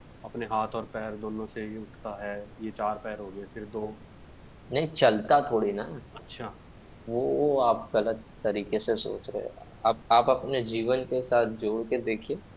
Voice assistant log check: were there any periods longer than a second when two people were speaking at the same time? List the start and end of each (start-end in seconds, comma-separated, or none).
none